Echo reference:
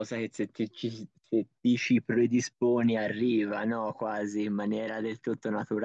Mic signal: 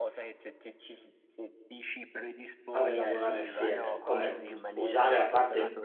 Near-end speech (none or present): present